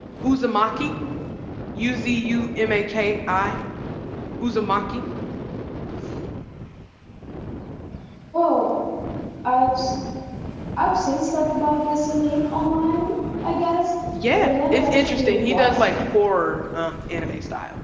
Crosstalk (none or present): present